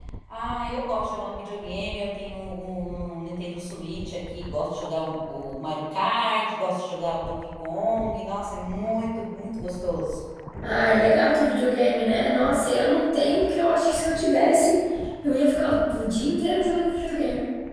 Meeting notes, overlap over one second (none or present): none